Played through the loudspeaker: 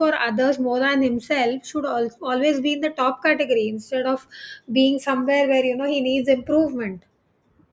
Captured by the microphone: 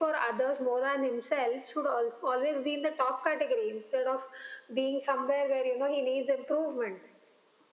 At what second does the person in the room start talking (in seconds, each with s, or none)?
none